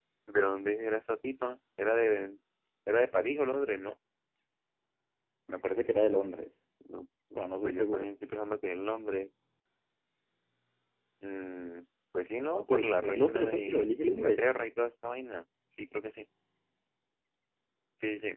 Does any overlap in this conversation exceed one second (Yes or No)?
Yes